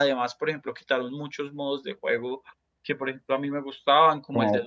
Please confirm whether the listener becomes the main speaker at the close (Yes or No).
No